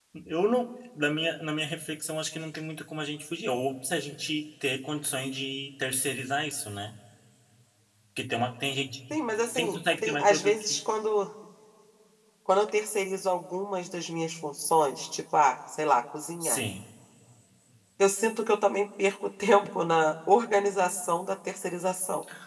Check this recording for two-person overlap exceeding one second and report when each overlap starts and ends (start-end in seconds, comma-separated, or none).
9.6-10.8